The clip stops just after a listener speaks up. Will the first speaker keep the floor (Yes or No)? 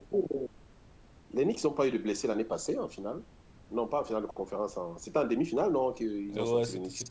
No